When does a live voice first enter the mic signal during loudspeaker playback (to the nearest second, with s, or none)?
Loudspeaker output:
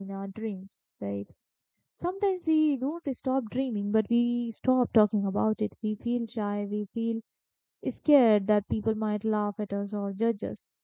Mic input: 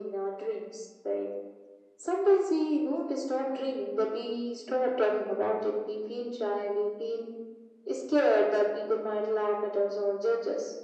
none